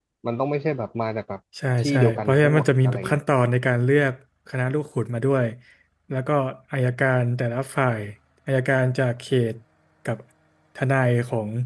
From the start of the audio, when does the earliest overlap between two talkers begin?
1.8 s

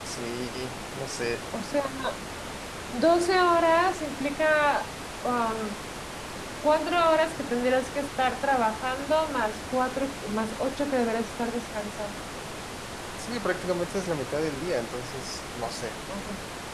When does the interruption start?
none

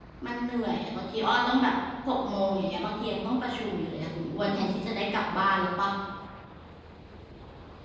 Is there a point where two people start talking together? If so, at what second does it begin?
none

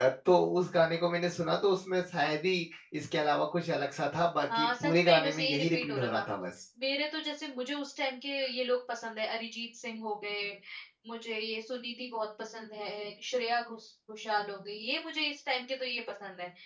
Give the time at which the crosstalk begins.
4.5 s

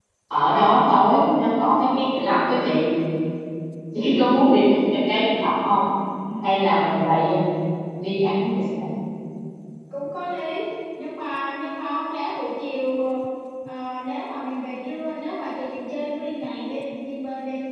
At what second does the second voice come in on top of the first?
none

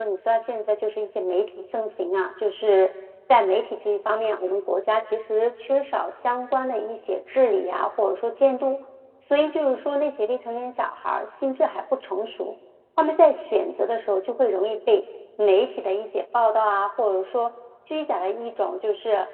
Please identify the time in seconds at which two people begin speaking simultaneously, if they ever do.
none

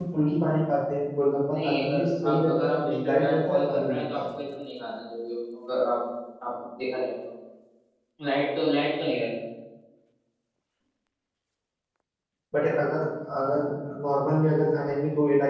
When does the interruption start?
1.5 s

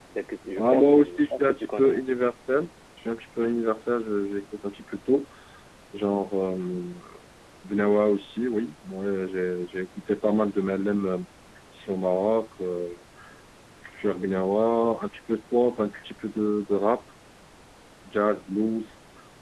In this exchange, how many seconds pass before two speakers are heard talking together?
0.6 s

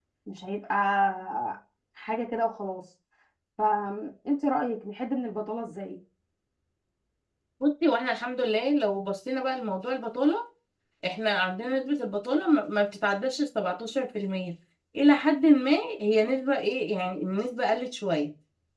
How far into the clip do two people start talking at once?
none

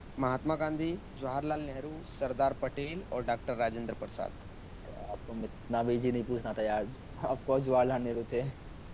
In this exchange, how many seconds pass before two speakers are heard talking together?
none

